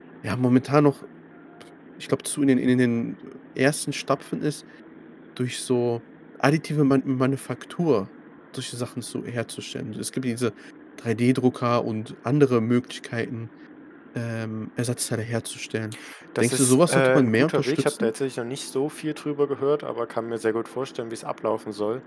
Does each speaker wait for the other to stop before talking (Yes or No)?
No